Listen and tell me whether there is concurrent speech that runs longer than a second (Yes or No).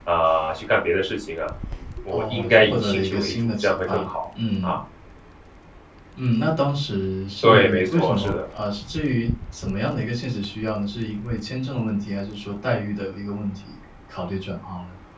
Yes